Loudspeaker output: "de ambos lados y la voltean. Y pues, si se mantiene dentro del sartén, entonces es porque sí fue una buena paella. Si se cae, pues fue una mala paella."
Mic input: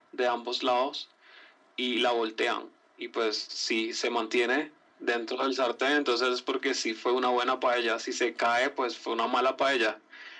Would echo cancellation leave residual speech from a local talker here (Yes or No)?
No